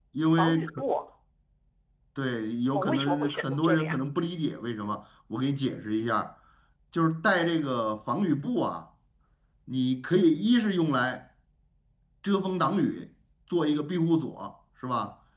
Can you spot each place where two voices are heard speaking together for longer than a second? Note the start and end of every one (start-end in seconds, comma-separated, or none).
2.7-4.0